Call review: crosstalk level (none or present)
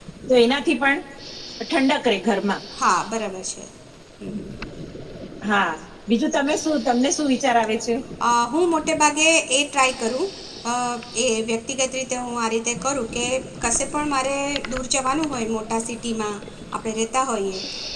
none